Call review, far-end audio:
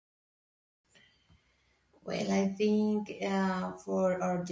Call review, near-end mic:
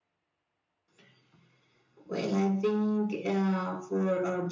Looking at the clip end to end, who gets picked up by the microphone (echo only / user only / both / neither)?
echo only